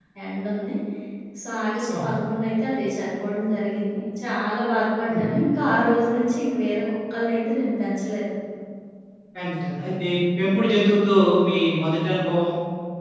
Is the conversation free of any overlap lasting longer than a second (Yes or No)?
Yes